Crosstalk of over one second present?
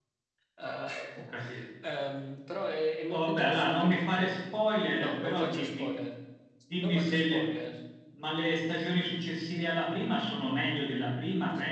Yes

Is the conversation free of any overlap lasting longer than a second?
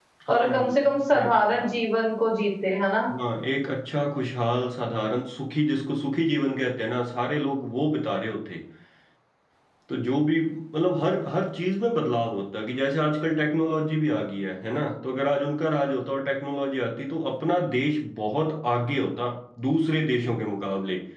No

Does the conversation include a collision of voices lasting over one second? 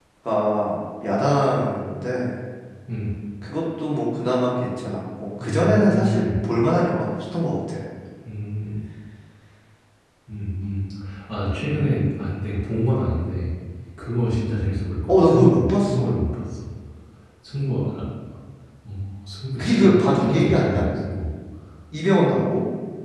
Yes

